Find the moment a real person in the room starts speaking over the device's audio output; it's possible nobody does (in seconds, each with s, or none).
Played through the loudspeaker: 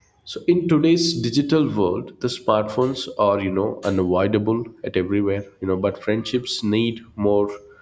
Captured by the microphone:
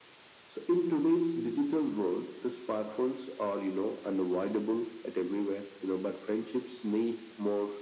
none